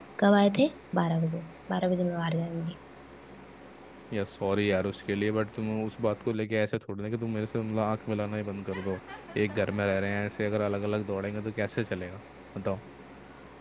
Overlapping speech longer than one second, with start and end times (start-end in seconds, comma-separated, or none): none